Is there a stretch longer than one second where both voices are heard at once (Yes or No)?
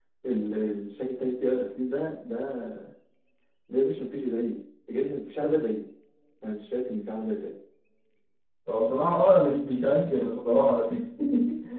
No